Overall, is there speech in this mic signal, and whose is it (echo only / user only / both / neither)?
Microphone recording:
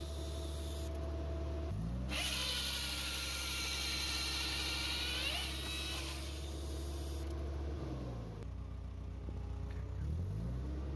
neither